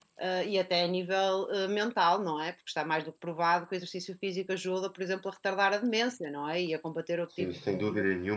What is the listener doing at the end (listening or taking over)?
taking over